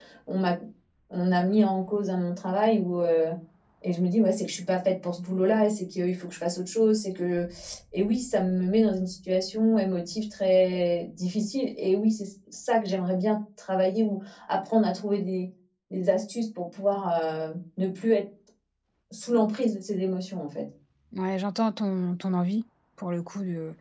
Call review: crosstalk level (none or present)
none